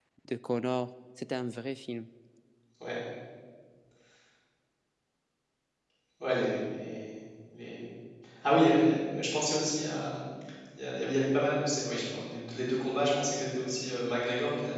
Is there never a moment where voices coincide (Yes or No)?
Yes